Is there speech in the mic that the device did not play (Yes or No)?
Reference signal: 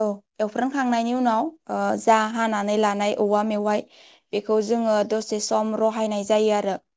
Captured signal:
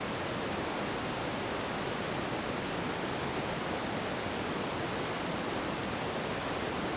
No